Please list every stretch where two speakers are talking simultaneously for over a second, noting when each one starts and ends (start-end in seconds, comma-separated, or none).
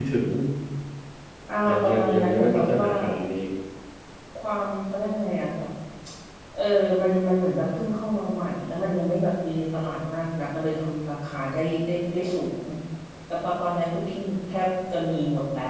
1.7-2.9